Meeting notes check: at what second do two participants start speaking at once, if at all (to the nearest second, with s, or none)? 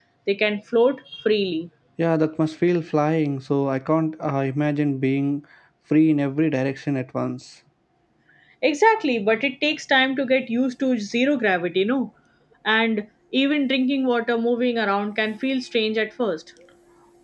none